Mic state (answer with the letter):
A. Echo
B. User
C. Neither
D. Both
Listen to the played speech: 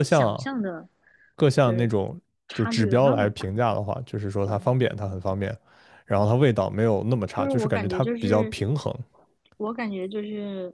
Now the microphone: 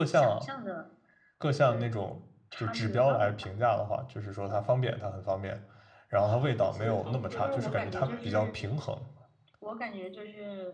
D